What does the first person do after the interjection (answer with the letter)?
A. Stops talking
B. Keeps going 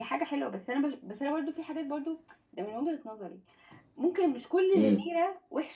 B